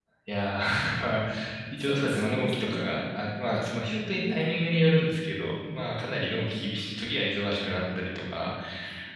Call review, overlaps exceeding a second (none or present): present